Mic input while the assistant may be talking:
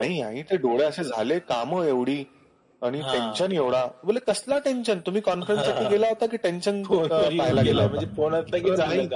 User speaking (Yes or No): Yes